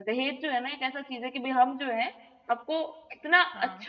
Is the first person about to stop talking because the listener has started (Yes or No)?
No